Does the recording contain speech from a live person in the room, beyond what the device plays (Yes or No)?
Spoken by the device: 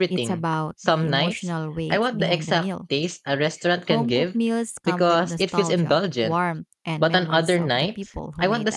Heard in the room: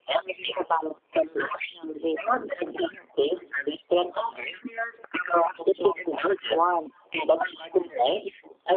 No